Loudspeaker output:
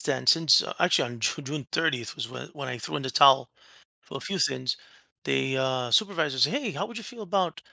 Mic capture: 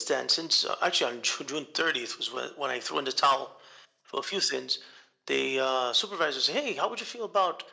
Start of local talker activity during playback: none

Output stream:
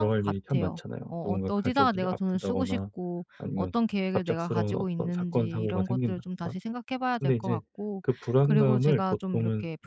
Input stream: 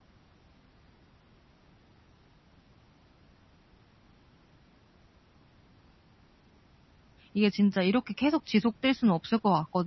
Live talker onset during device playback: 7.3 s

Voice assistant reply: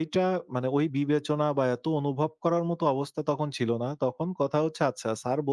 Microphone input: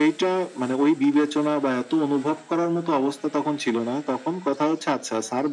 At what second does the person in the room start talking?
none

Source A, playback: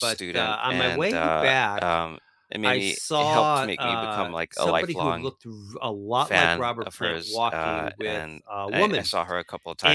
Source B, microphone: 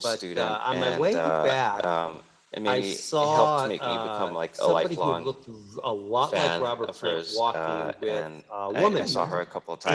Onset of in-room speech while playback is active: 8.9 s

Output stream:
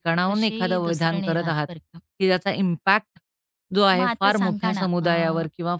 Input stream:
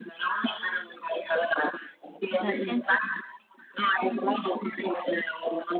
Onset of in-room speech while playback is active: 2.4 s

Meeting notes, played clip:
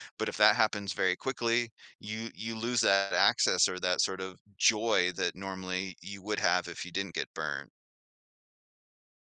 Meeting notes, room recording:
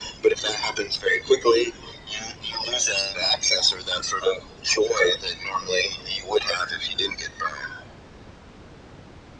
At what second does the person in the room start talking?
none

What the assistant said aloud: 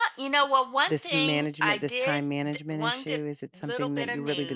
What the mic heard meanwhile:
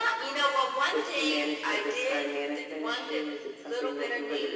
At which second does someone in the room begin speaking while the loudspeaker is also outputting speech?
none

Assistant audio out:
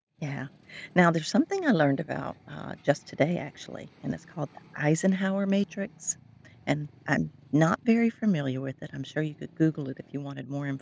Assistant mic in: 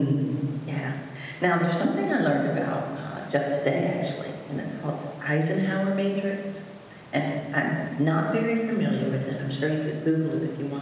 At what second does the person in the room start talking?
none

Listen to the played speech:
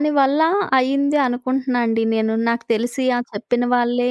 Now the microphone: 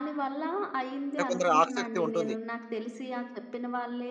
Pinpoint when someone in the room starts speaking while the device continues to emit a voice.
1.1 s

